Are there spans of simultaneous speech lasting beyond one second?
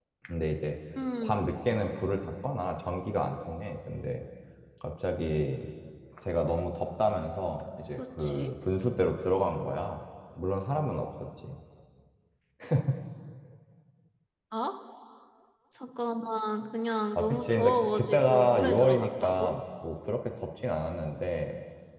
Yes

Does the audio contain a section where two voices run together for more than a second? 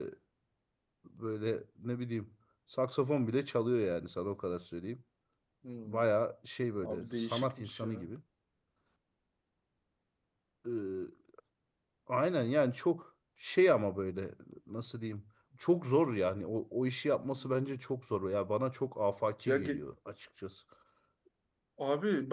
Yes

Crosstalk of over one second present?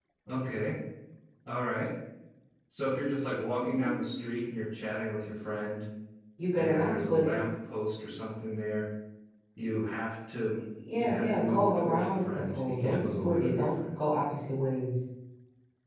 Yes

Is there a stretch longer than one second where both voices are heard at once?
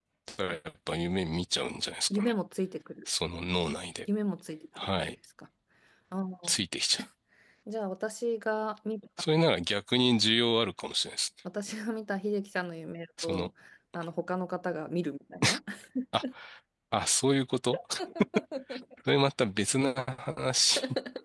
No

